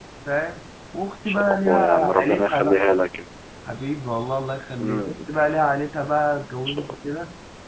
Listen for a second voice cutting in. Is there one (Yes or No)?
Yes